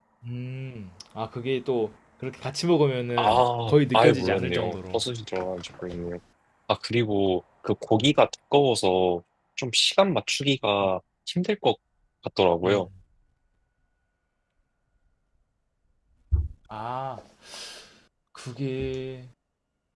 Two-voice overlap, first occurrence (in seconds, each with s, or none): 3.2 s